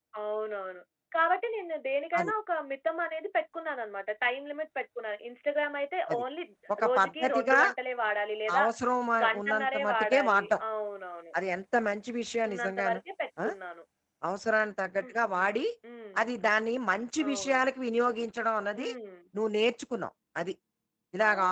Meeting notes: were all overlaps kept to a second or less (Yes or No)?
No